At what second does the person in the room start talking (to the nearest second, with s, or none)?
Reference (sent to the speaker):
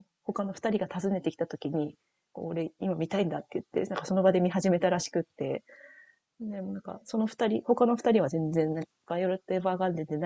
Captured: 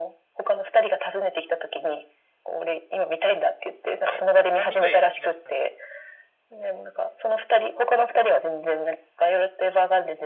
4 s